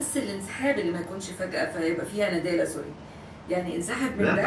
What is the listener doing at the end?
taking over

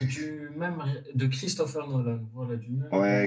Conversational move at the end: taking over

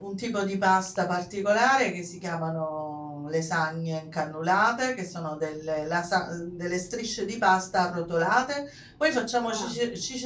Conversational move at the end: listening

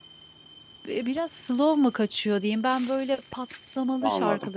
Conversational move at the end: listening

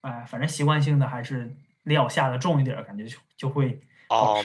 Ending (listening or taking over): taking over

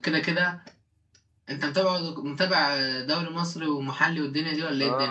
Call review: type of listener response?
taking over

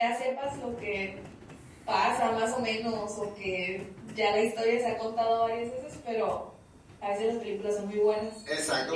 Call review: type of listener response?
taking over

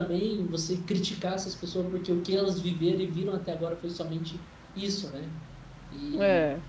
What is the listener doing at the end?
listening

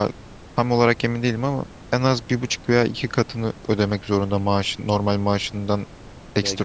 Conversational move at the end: taking over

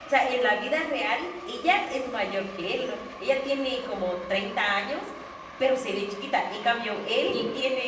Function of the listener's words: listening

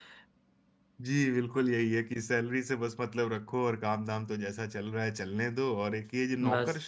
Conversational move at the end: listening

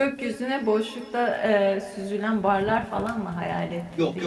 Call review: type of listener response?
taking over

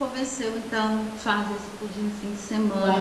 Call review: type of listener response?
taking over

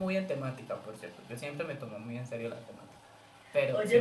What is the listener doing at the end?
taking over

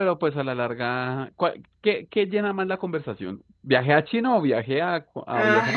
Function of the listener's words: taking over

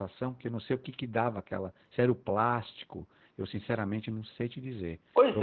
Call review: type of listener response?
taking over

